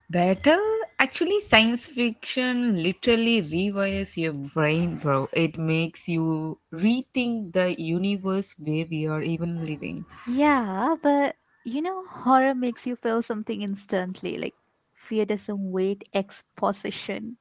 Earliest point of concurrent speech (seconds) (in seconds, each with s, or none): none